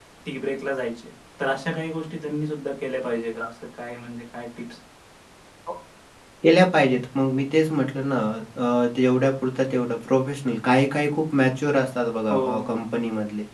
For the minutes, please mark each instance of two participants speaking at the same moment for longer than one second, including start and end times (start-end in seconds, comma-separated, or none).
none